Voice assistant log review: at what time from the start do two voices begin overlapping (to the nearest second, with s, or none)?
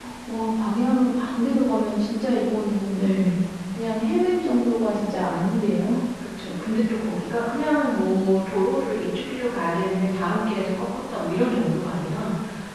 none